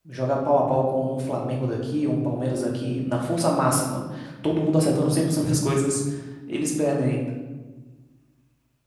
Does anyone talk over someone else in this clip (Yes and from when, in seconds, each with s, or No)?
No